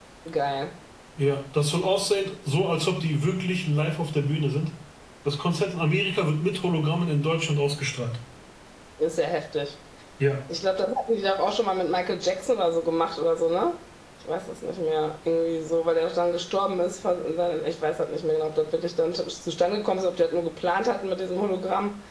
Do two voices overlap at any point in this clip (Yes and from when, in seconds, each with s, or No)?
No